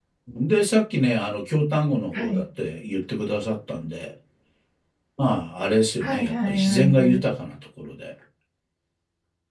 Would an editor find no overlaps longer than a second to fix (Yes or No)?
No